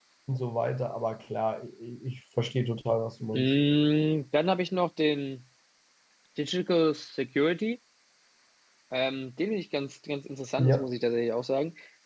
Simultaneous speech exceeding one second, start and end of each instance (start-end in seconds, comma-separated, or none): none